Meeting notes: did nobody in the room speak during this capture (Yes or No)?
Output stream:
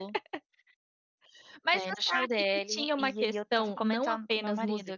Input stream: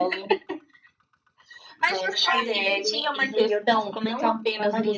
No